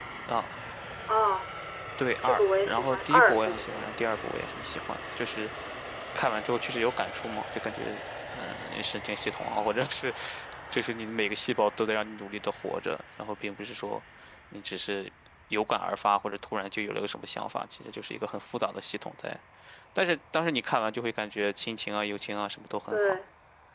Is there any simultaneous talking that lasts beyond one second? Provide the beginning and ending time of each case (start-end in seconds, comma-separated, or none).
2.2-3.8